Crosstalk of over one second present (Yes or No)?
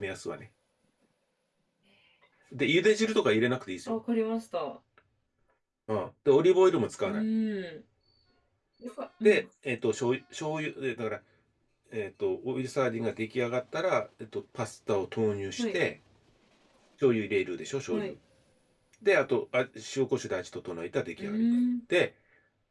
No